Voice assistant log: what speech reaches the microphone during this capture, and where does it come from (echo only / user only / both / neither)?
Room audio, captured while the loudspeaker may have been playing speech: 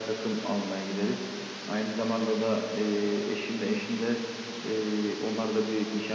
echo only